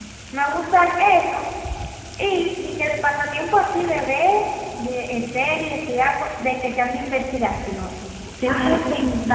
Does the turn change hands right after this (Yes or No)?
No